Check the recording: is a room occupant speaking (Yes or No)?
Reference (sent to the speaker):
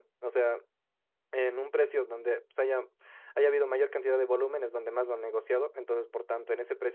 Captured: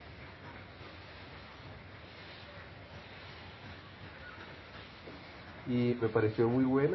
Yes